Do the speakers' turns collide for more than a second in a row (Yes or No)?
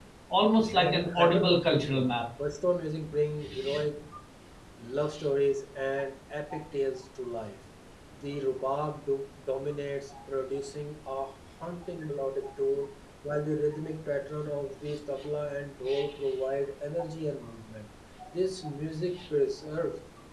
Yes